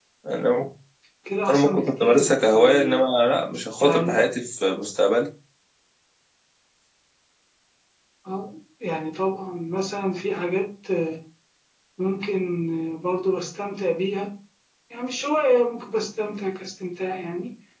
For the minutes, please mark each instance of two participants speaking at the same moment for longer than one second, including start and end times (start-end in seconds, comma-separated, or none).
1.5-3.0